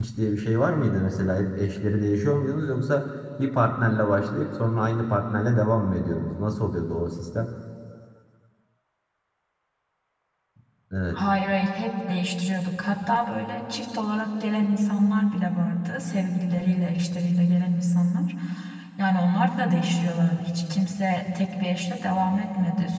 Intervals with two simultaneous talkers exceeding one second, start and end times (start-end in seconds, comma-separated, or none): none